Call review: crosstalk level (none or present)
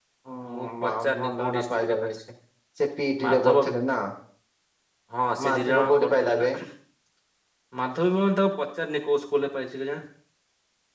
present